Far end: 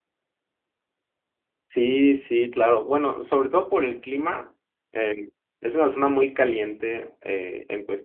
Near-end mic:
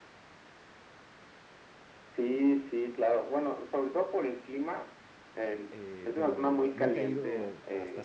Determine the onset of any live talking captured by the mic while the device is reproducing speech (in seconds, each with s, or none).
5.7 s